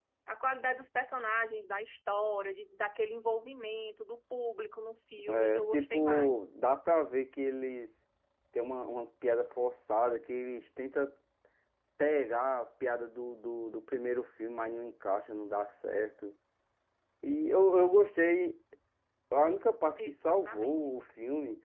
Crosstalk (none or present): present